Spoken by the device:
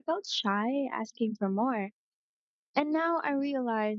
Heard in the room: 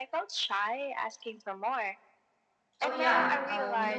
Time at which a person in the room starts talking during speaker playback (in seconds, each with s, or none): 2.8 s